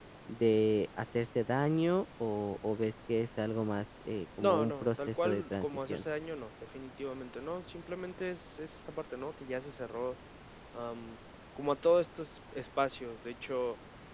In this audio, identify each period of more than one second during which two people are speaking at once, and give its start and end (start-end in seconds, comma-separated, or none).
4.4-6.0